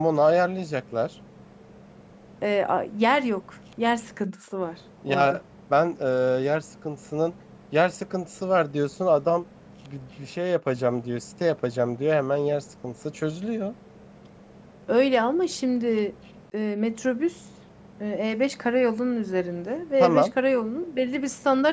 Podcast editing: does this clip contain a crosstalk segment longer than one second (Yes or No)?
No